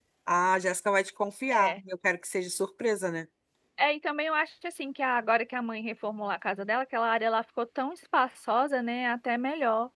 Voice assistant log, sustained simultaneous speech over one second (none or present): none